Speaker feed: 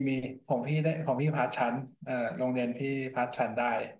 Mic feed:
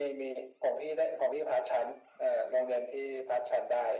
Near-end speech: none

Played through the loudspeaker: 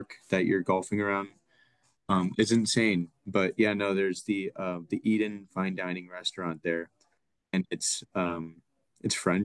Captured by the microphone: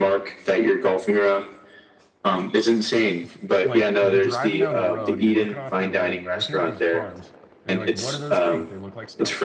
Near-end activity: present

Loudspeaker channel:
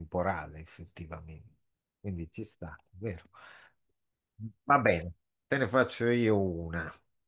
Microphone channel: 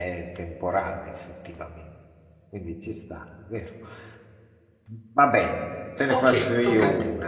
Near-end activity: present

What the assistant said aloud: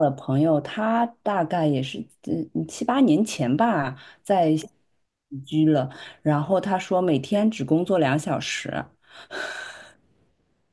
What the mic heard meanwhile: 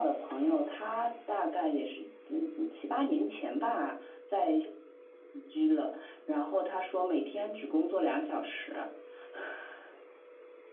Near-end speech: none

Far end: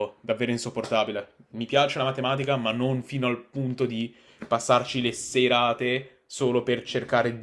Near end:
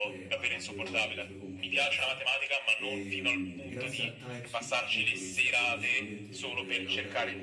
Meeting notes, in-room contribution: present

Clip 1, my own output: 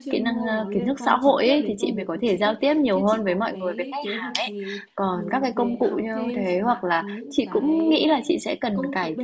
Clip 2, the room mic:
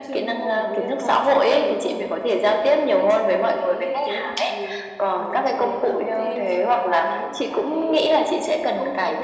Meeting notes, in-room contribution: none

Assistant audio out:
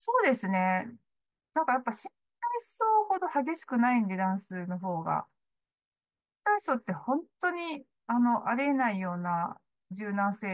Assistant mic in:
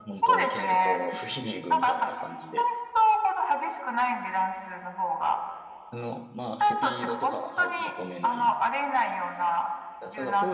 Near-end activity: present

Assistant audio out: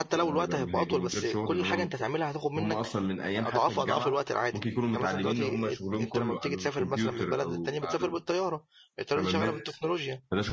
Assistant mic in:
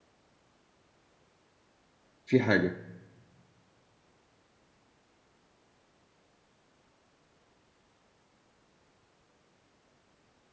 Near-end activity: present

